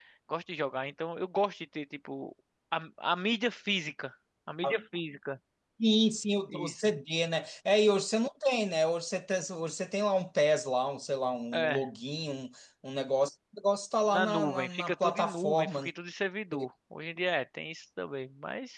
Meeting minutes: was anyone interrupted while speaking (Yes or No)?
Yes